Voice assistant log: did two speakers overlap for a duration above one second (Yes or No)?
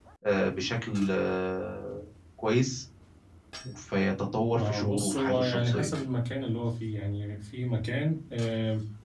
Yes